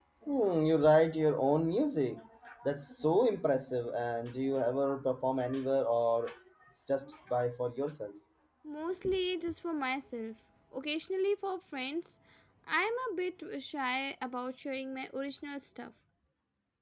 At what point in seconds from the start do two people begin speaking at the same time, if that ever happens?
none

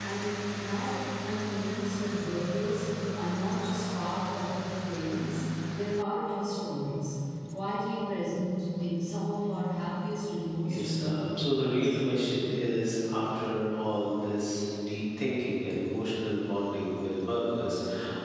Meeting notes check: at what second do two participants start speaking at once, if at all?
10.7 s

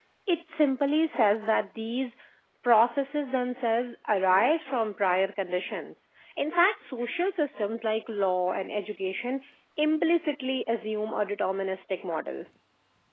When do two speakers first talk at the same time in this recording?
none

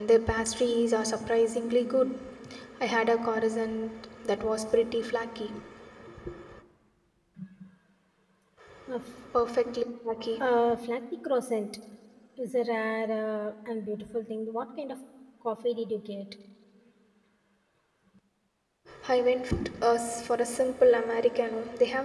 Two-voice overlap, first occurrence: none

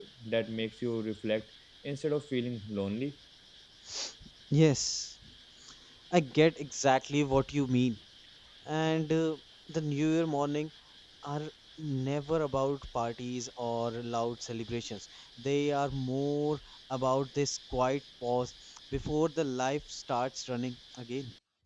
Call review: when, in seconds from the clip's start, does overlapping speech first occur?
none

